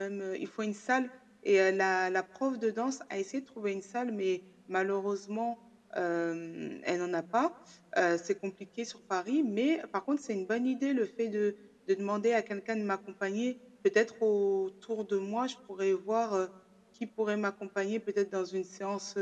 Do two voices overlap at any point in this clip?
No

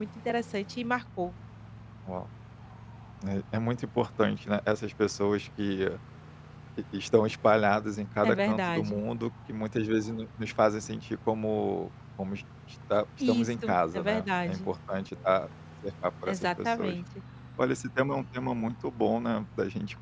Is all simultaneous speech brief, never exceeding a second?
No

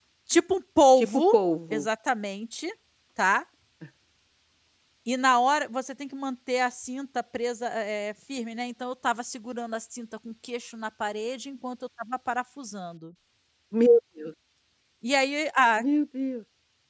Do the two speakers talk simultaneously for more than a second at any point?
No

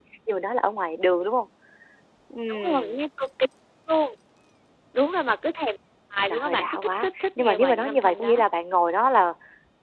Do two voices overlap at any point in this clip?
Yes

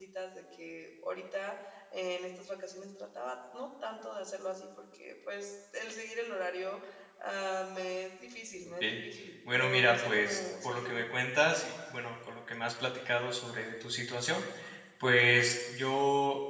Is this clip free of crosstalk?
No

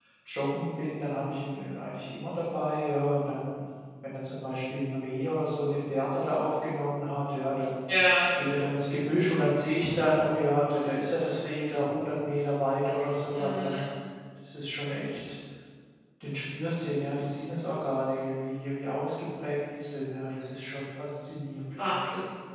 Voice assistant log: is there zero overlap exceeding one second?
Yes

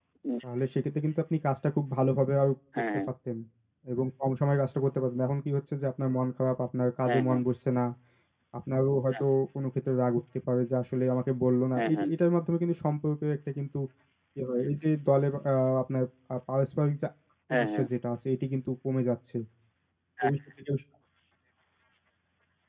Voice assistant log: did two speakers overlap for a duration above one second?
No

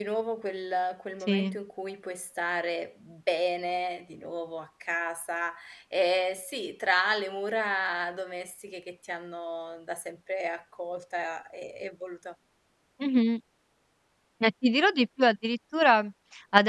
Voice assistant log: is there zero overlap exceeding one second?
Yes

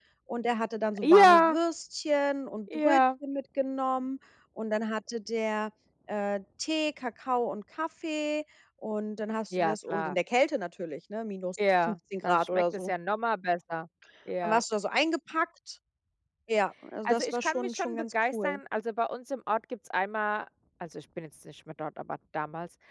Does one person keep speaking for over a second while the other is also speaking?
Yes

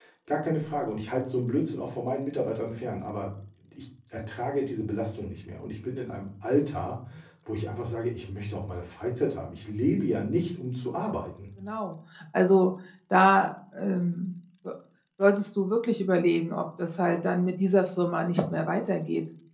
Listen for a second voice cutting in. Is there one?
No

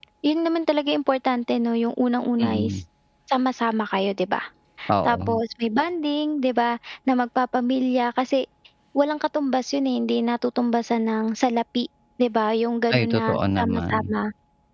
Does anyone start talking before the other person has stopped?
Yes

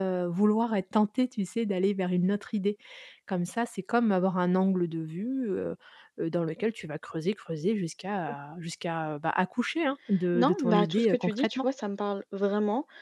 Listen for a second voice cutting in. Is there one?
Yes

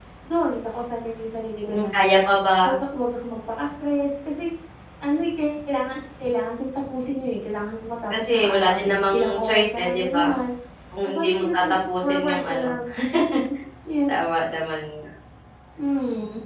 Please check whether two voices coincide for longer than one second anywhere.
Yes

